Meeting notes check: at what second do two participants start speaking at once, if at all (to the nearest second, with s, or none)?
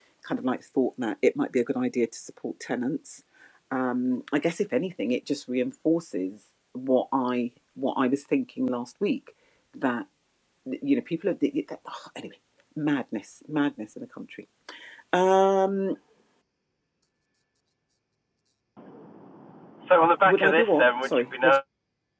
20 s